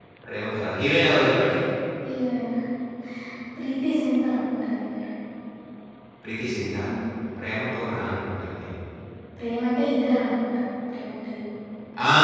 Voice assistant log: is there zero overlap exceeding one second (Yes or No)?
Yes